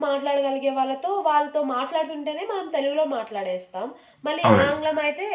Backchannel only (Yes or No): Yes